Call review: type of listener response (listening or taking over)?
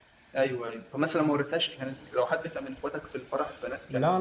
taking over